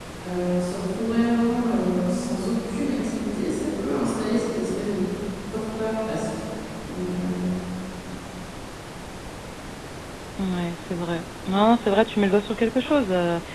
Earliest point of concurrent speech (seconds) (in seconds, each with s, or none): none